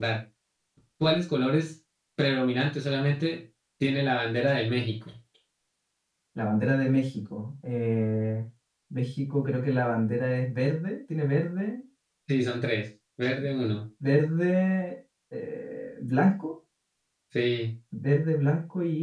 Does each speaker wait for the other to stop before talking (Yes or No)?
Yes